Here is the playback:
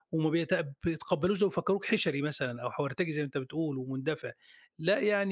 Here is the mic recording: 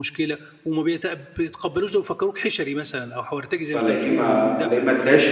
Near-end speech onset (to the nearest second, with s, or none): 4 s